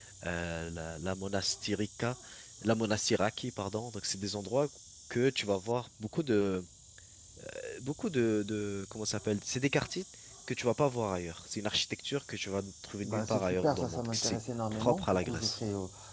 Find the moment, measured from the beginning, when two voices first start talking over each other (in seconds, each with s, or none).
13.0 s